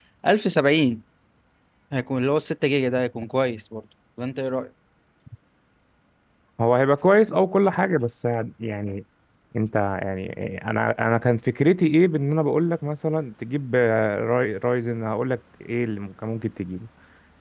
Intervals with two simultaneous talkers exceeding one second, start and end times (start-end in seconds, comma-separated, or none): none